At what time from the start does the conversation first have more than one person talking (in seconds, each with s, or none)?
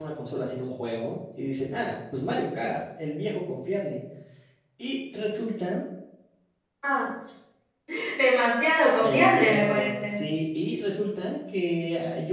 9.0 s